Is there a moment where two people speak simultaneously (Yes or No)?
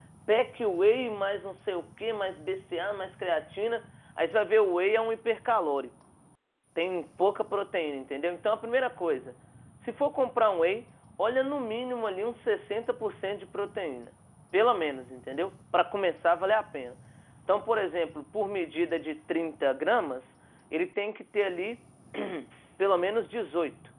No